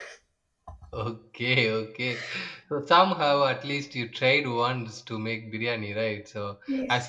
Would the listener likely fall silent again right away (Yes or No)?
Yes